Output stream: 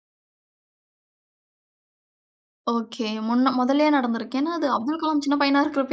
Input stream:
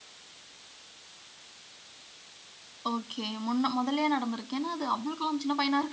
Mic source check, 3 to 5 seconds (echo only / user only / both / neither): echo only